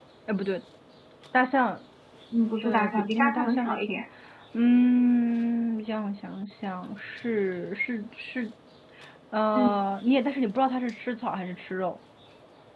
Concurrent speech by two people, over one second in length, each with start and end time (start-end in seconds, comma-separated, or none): 2.6-4.0